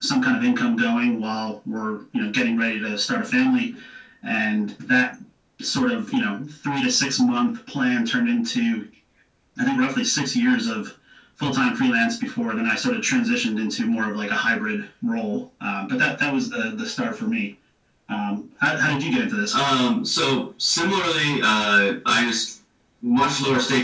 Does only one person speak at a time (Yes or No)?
Yes